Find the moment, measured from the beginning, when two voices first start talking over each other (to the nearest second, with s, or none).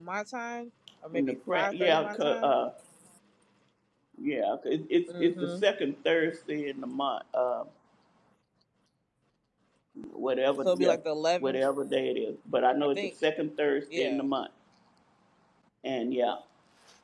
1 s